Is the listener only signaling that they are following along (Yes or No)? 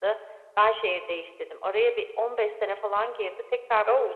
Yes